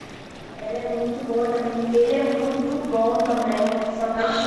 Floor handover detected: Yes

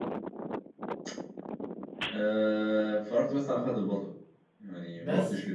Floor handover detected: No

